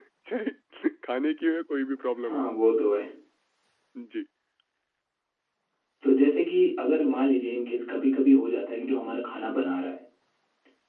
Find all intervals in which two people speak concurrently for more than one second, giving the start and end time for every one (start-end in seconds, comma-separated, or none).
none